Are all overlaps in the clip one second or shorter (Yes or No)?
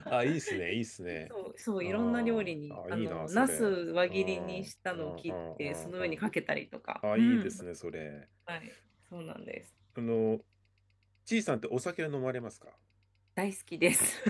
No